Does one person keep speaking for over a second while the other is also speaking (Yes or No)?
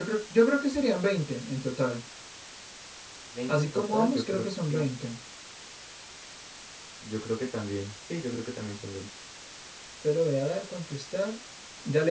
Yes